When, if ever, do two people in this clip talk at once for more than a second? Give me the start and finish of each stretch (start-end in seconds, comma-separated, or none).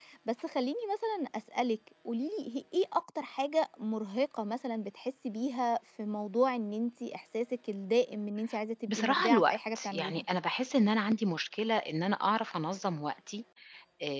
8.9-10.2